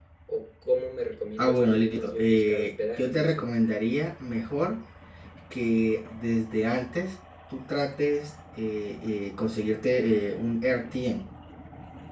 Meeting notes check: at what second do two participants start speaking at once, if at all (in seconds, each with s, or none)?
1.4 s